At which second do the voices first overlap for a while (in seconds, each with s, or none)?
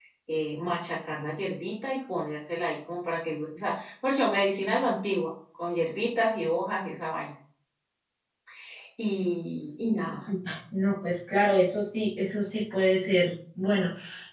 none